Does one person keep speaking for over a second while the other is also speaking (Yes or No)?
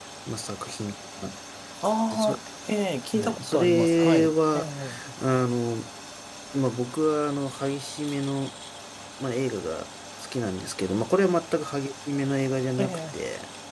Yes